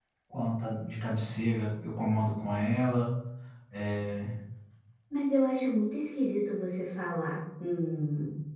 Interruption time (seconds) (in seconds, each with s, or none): none